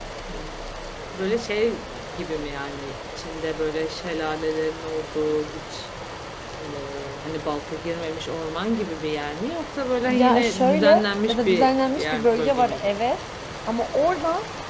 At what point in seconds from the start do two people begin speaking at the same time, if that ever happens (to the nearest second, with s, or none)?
10 s